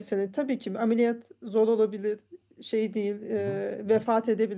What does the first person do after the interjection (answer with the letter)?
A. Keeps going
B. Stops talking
A